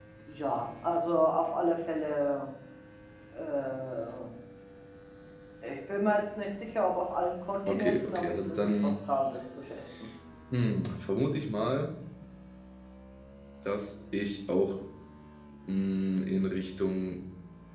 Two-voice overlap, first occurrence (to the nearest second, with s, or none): 8 s